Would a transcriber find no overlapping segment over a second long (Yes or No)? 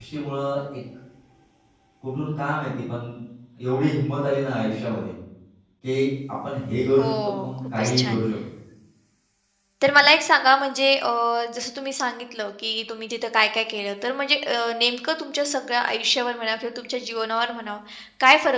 No